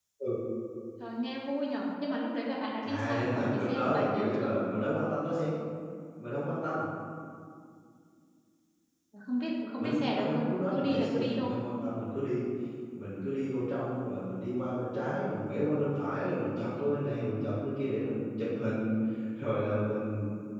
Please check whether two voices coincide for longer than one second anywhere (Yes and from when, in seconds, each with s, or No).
Yes, from 2.8 s